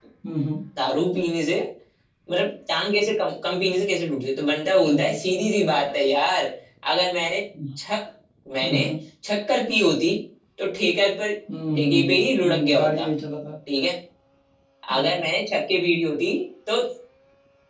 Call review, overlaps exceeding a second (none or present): present